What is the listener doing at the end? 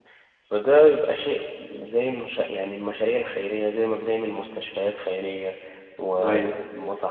listening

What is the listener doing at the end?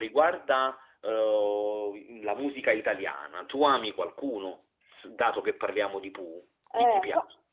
taking over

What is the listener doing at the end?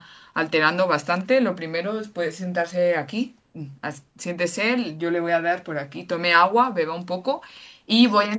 listening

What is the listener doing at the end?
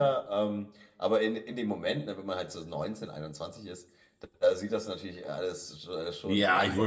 taking over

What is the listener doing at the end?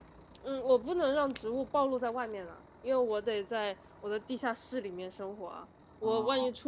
listening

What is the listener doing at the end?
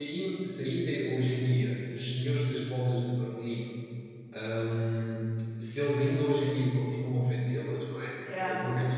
listening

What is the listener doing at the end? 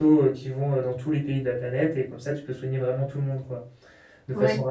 listening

